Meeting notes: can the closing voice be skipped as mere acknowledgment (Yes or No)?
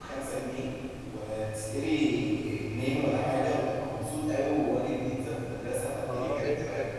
No